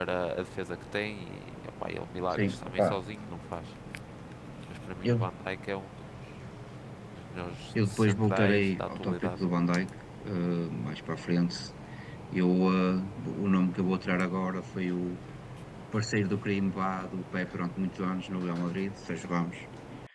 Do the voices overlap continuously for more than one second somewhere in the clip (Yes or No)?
Yes